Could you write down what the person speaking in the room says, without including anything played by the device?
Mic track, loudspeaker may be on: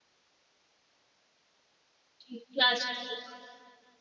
जी, क्लास टीचर, हाँ।

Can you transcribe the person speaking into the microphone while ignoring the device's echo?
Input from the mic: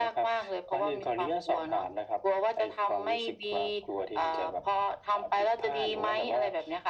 none

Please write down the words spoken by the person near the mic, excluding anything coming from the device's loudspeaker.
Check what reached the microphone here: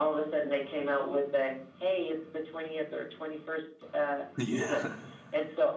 Yeah,

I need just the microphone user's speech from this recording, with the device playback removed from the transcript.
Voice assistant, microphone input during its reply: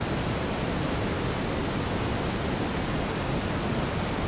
none

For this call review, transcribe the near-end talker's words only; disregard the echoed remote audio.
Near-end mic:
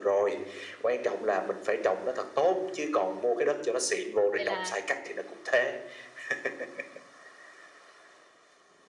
Vậy là,

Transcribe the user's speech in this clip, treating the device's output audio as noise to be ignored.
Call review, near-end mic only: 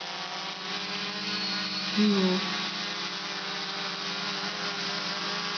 Mm.

